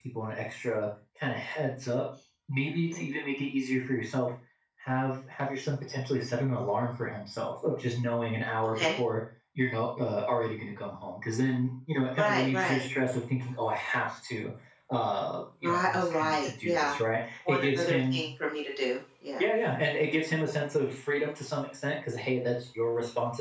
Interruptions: present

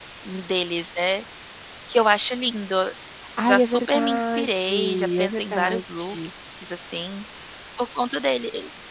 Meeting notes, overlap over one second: present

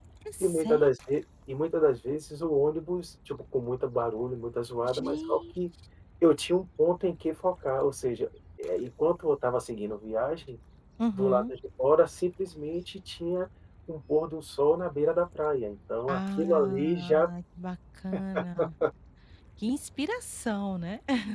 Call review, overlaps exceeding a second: present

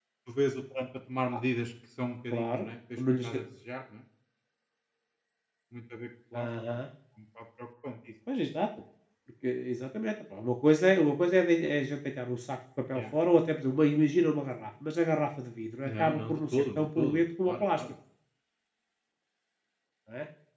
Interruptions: present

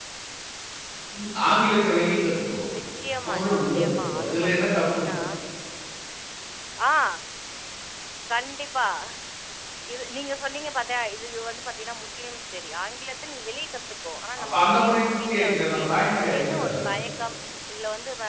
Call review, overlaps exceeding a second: present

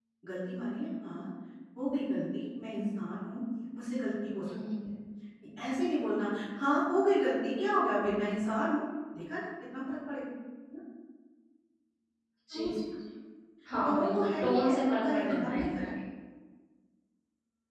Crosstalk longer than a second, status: present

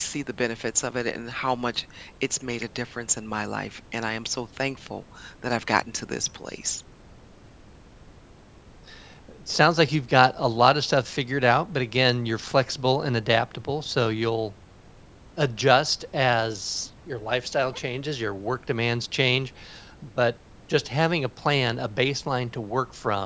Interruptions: none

